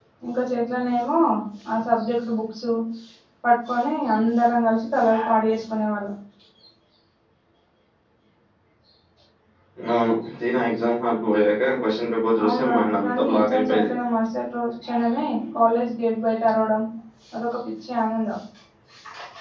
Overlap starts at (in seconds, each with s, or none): 12.4 s